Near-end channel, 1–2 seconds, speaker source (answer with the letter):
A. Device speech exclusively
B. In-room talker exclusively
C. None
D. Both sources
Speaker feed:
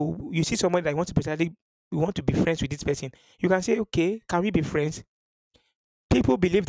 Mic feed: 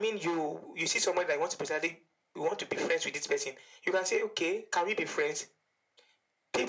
A